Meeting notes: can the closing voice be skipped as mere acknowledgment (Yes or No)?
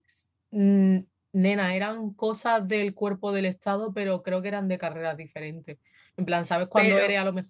Yes